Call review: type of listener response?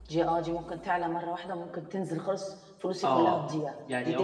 taking over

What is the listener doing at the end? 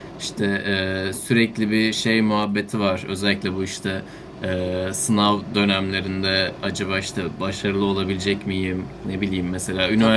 listening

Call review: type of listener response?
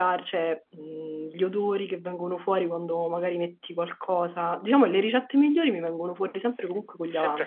taking over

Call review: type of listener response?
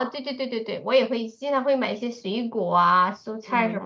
taking over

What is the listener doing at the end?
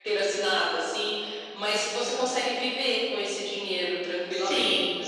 taking over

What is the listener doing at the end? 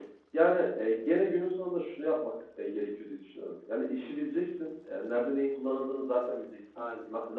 listening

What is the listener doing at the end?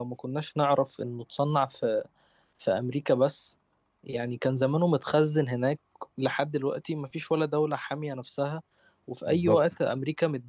listening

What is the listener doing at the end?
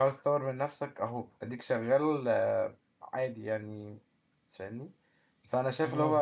listening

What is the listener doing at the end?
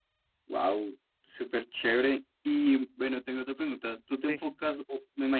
listening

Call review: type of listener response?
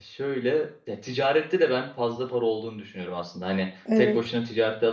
listening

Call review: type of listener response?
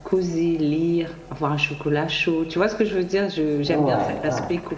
listening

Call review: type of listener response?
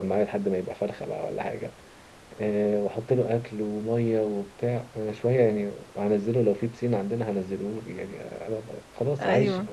listening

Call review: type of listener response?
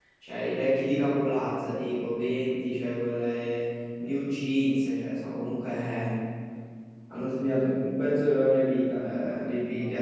listening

